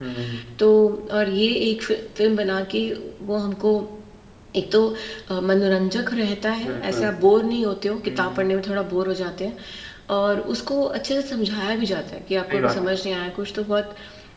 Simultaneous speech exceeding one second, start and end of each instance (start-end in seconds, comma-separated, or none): none